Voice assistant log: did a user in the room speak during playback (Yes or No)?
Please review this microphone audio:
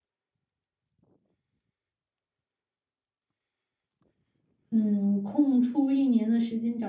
Yes